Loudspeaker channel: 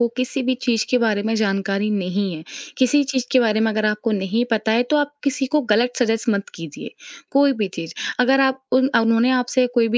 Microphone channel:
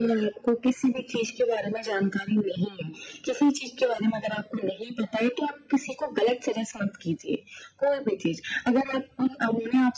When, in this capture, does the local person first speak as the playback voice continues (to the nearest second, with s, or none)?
none